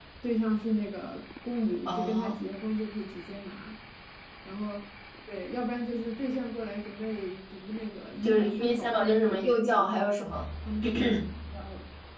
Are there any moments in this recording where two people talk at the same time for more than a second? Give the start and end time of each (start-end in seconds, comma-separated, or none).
8.2-10.0